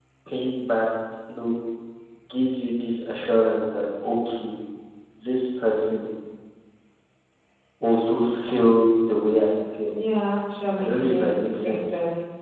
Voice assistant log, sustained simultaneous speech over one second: present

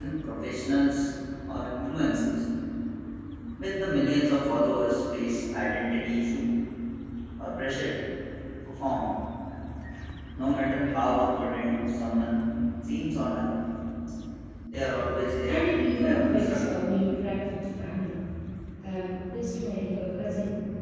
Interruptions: present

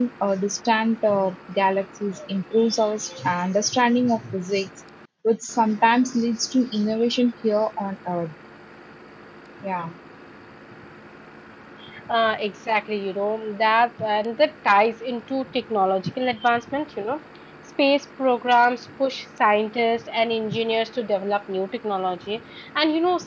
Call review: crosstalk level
none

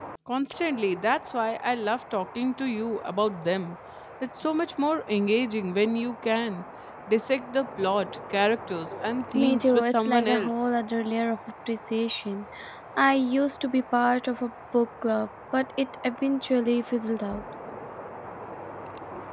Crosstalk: present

